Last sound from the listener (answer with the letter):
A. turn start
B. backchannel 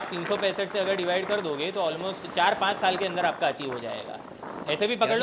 B